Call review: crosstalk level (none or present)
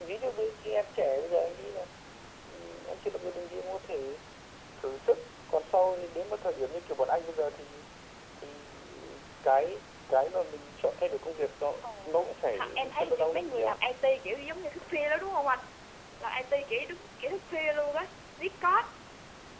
present